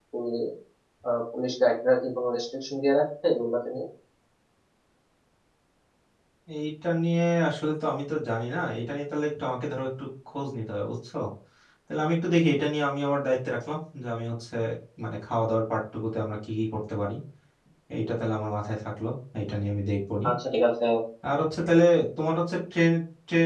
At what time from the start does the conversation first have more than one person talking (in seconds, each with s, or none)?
none